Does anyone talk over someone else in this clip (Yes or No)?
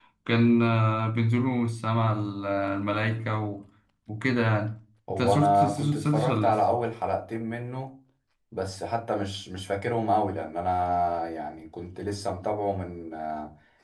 Yes